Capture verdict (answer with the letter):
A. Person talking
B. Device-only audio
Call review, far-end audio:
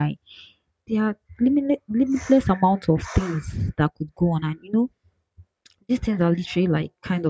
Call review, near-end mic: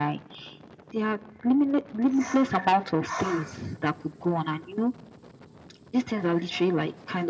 B